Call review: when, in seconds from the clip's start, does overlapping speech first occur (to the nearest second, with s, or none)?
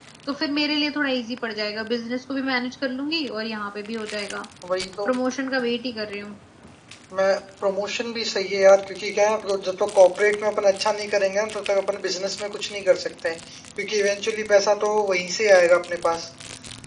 none